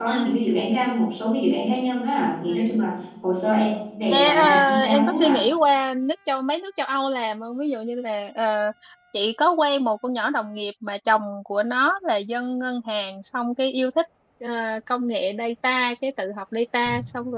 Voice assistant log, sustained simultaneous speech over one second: present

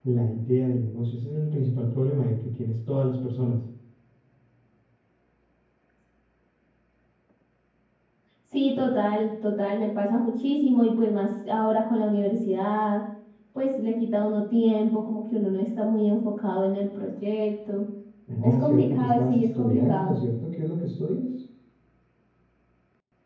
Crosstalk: present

